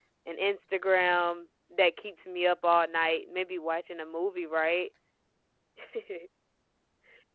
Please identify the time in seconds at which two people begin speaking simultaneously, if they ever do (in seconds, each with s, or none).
none